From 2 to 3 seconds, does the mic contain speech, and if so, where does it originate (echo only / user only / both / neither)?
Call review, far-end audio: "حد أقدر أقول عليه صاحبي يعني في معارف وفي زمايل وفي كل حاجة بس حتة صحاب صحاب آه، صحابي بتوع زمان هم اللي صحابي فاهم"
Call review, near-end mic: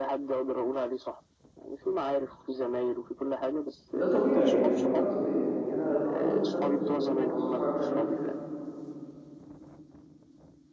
echo only